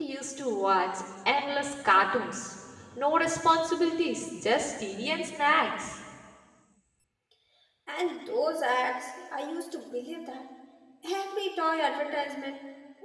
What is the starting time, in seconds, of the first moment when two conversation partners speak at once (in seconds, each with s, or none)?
none